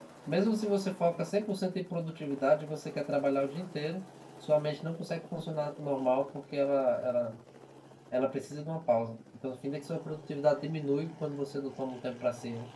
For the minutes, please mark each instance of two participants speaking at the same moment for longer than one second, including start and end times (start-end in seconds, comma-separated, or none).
none